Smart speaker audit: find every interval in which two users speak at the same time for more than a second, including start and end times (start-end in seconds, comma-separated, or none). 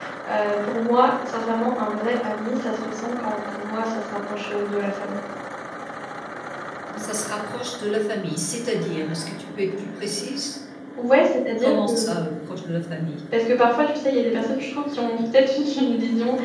none